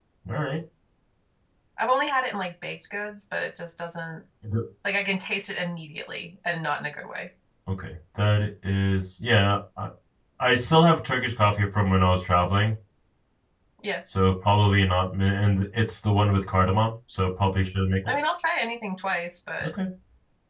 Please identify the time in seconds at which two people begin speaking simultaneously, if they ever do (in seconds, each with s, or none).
none